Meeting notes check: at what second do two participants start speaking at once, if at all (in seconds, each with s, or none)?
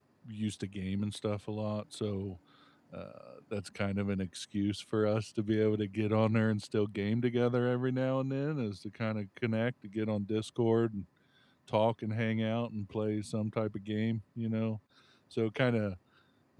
none